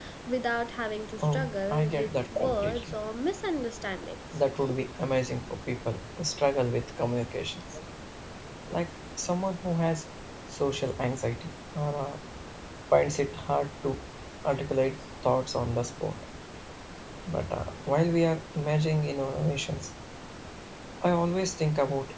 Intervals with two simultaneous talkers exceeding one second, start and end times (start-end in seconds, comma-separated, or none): 1.2-3.0